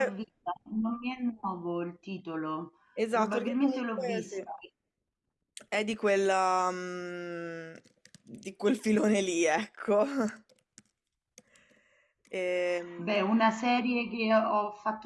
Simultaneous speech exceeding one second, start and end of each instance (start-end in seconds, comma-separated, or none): 3.2-4.4